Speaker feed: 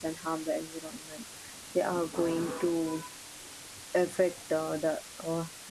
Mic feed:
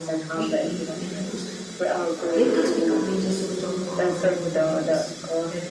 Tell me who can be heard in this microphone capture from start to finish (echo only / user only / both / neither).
both